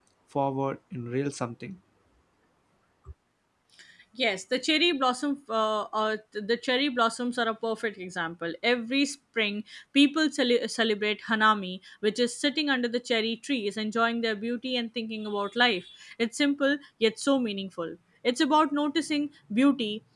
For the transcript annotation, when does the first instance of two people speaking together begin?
none

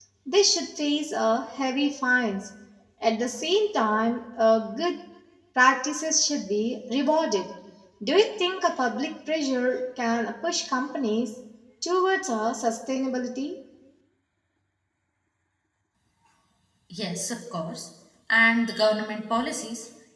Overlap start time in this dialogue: none

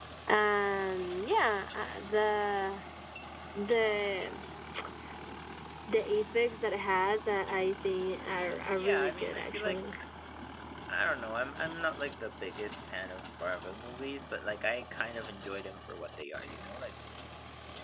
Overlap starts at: 9 s

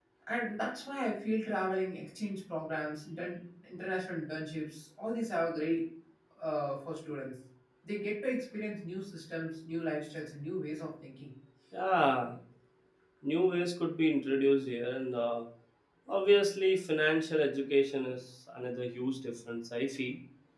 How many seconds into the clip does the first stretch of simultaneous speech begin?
none

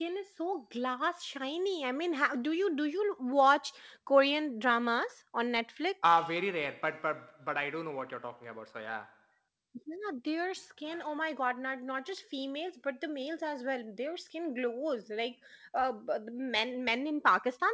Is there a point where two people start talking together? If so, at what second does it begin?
none

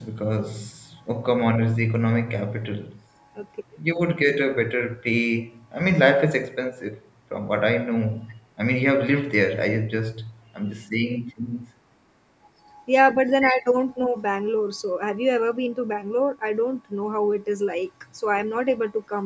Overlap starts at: none

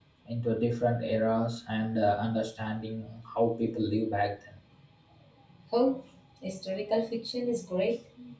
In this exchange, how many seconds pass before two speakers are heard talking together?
none

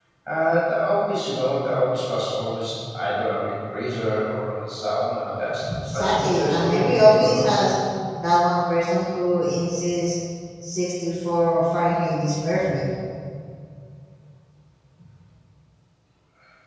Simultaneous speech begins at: 6 s

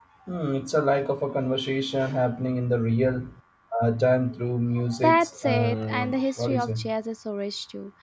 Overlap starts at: 5 s

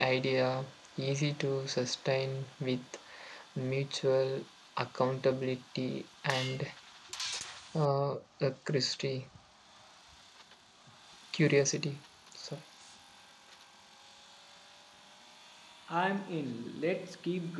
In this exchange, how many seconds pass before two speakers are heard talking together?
none

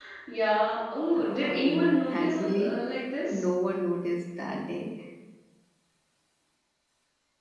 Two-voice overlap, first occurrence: 1 s

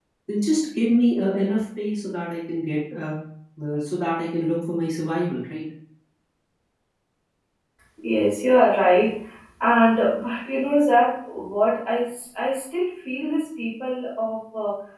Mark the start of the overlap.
none

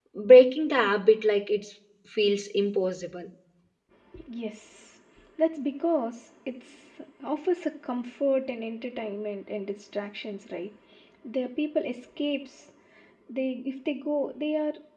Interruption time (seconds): none

